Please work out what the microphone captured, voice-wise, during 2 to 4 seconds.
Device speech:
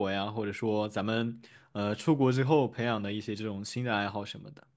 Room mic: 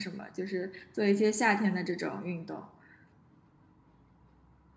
user only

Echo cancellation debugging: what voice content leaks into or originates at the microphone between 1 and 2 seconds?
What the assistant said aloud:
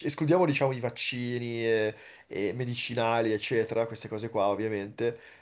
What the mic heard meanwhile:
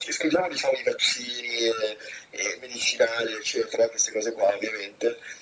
echo only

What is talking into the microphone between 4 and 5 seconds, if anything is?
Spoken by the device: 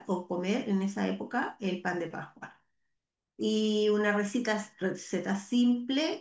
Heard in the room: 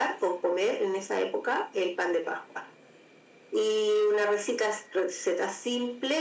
echo only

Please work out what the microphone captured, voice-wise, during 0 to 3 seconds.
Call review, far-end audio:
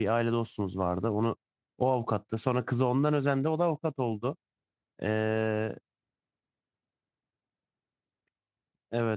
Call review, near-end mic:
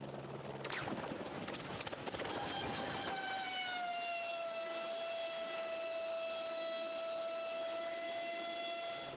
neither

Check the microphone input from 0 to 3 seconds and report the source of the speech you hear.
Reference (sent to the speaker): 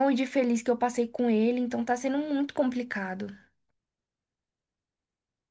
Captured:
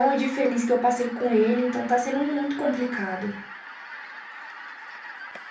echo only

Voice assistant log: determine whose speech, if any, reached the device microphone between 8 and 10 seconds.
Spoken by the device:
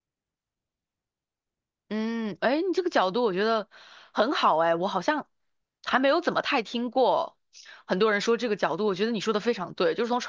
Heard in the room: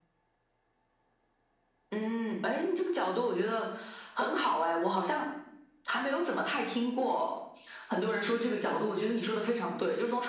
echo only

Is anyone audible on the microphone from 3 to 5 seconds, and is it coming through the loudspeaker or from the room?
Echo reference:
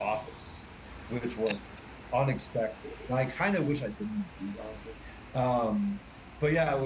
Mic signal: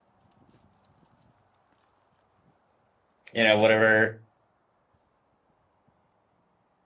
user only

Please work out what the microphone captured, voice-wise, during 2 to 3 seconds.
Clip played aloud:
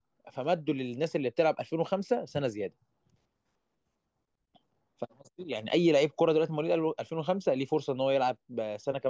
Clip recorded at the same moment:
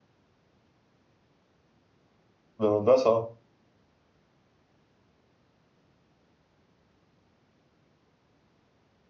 user only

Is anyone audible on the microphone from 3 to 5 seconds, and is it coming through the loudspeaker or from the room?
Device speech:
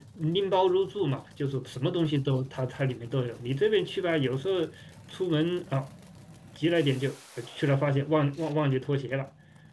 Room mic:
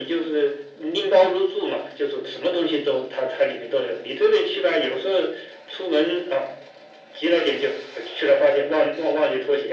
echo only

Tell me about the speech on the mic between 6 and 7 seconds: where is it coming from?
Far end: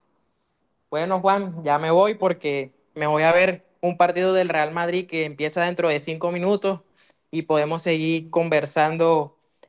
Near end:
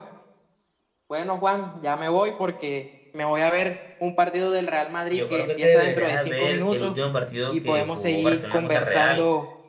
both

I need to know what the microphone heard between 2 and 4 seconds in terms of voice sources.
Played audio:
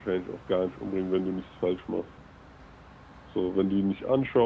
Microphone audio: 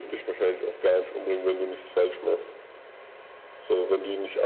echo only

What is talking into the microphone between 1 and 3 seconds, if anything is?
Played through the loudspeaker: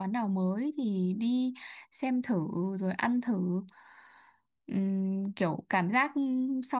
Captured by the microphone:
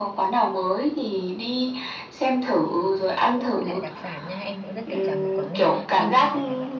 echo only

